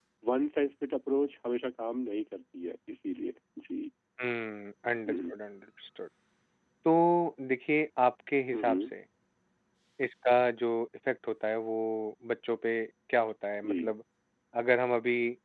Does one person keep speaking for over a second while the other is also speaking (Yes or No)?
No